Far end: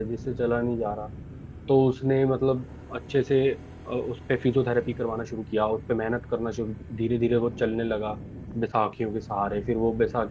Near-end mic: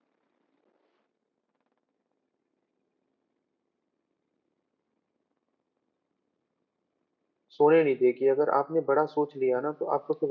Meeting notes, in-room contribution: present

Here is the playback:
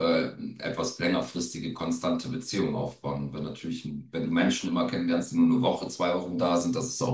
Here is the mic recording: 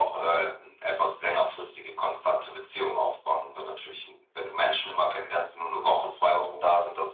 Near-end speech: none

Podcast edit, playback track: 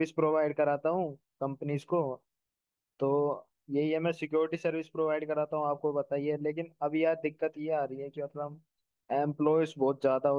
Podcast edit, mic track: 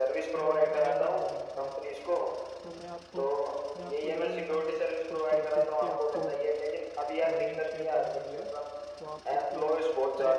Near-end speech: present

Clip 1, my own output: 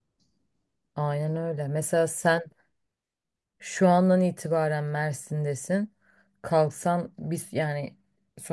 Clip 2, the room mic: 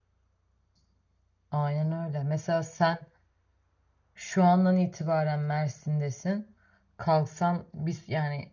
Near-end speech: none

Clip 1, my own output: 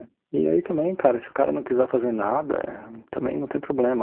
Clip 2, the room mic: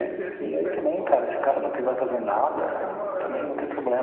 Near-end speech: present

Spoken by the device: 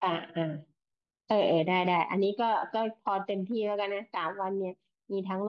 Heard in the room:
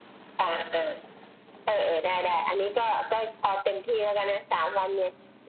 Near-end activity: none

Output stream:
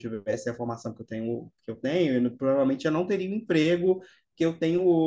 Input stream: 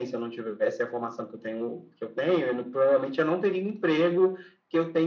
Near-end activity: none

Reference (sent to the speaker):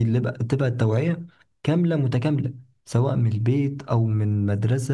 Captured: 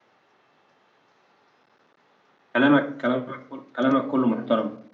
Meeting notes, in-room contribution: present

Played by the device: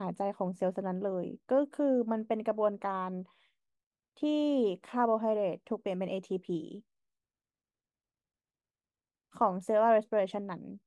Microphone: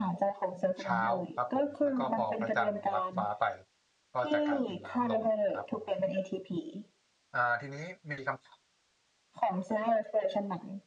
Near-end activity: present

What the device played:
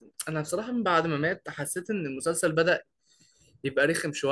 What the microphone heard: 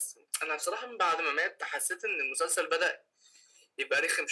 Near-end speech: none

